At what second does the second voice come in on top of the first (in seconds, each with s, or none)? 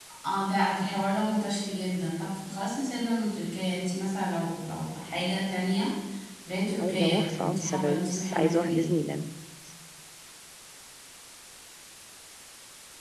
6.8 s